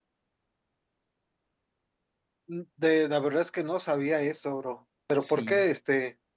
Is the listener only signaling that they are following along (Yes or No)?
Yes